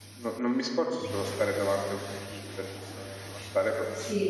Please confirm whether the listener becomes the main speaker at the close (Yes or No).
Yes